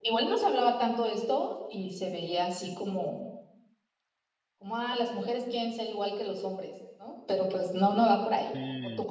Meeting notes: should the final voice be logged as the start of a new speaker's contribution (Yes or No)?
Yes